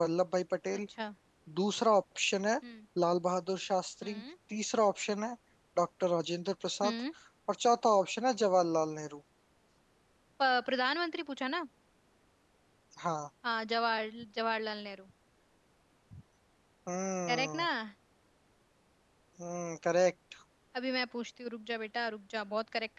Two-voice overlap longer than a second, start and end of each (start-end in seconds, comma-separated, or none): none